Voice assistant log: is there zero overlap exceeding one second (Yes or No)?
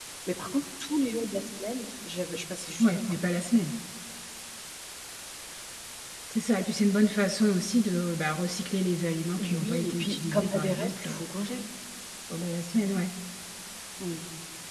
No